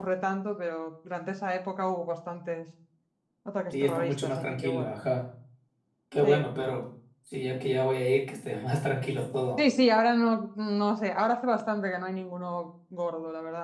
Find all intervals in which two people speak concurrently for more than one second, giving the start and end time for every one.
3.7-4.9

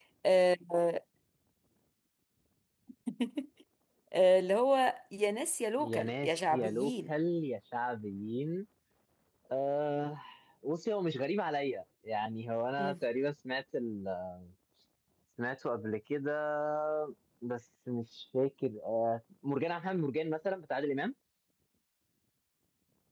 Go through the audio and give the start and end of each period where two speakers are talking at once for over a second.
5.8-7.1

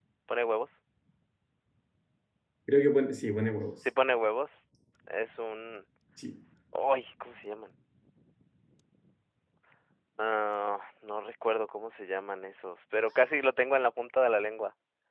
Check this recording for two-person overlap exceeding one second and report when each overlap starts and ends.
none

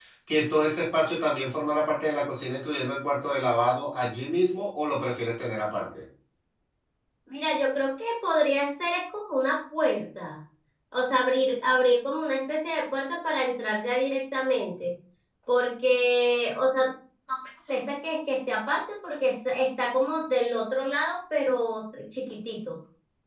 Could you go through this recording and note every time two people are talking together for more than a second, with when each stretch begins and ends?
none

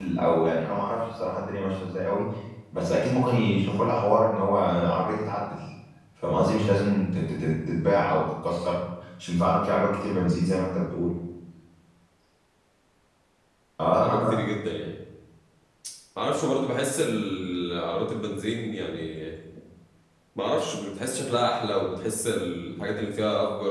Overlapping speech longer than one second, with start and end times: none

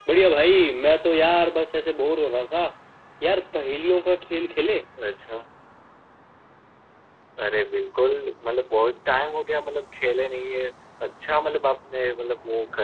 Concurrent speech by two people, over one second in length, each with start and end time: none

